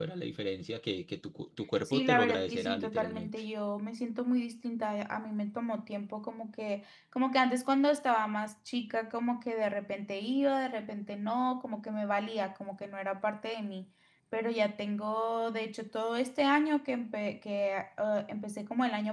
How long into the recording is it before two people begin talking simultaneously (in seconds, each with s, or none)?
1.8 s